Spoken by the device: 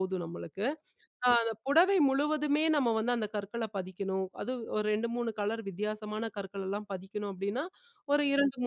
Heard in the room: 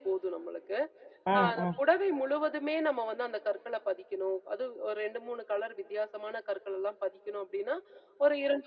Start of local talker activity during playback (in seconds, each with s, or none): 1.3 s